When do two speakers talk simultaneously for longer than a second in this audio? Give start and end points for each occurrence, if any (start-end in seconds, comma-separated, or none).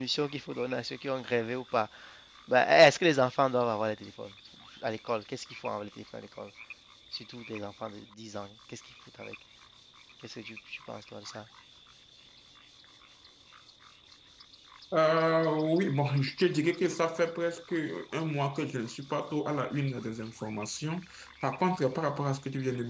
none